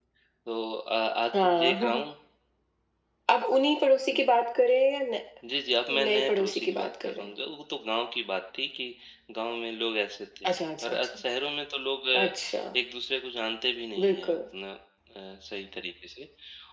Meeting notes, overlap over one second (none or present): present